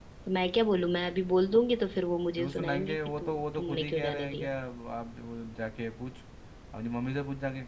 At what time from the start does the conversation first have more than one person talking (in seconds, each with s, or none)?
2.4 s